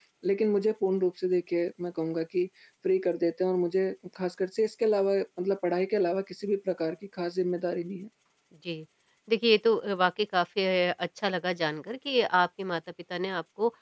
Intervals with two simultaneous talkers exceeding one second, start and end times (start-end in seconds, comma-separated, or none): none